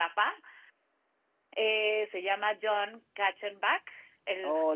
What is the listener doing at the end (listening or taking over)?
taking over